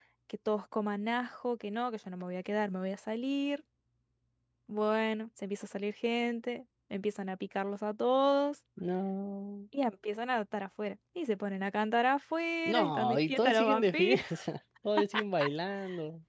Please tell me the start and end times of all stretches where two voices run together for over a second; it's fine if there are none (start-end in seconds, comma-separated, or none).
12.6-14.2